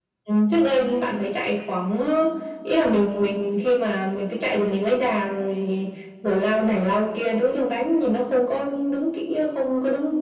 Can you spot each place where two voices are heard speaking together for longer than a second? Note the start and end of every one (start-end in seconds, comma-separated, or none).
none